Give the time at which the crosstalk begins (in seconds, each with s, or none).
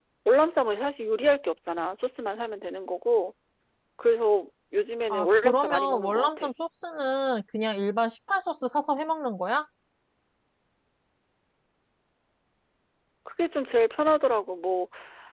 5.1 s